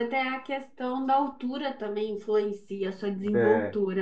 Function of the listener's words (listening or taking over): taking over